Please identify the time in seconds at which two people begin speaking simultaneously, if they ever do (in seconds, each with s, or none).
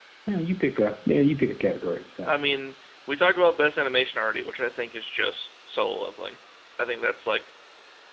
none